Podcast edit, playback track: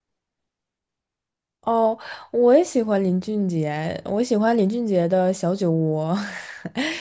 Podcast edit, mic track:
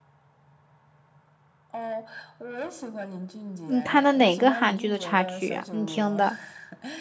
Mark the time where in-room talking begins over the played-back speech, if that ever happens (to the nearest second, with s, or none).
4 s